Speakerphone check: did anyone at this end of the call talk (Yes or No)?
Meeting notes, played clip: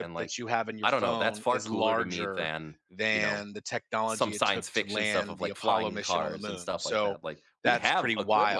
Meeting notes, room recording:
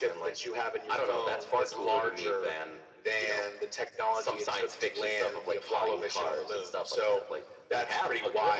No